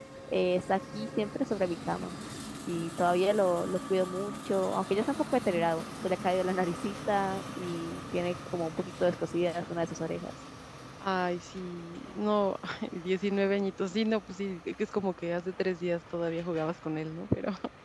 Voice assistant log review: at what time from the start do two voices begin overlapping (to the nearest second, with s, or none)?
none